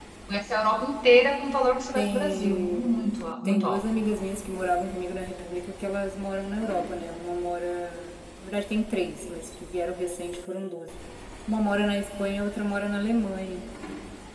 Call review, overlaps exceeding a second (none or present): present